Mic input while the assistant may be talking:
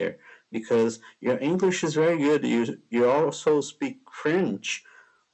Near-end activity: none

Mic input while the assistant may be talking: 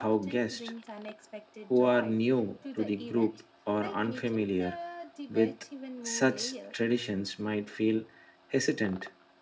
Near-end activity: present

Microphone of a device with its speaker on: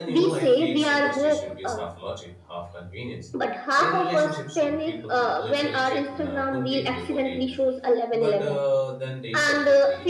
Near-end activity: present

